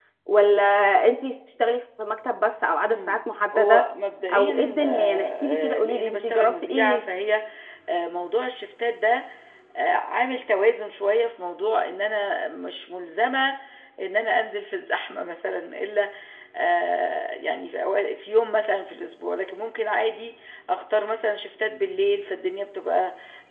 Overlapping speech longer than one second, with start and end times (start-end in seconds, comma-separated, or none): 4.3-7.0